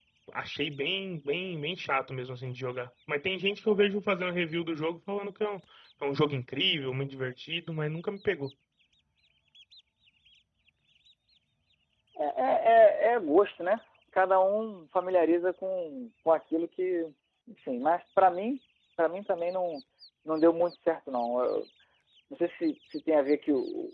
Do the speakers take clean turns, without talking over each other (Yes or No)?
Yes